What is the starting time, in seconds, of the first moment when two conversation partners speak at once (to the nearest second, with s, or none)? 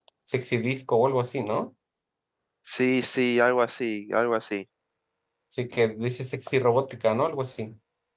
none